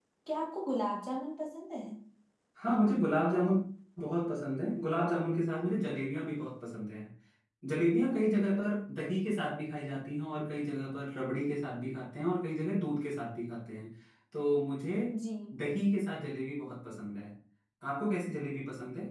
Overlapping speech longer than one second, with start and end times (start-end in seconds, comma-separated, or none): none